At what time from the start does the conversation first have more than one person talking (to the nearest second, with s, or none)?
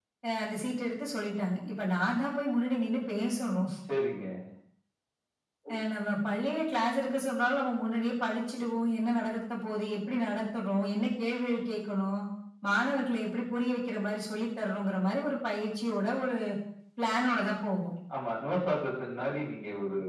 none